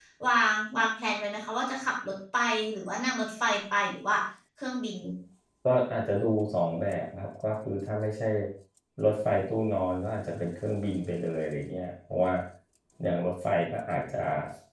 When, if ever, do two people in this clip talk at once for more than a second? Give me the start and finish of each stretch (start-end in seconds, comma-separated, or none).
none